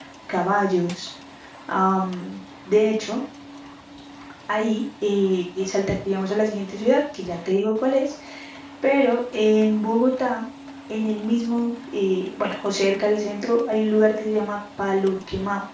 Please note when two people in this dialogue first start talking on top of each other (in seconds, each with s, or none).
none